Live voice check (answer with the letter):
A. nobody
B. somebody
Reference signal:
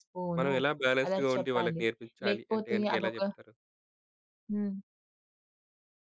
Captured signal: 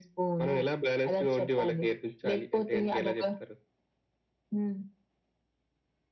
A